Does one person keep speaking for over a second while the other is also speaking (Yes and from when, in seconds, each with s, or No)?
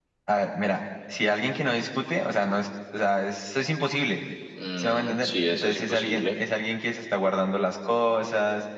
Yes, from 4.8 s